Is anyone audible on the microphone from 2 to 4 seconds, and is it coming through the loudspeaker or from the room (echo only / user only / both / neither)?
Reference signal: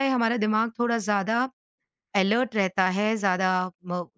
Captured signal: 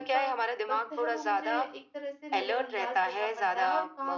both